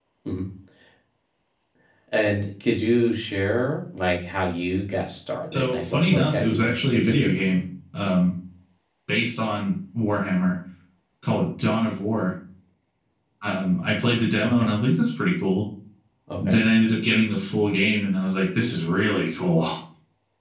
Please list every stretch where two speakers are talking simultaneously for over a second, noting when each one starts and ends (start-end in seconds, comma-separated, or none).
5.5-7.6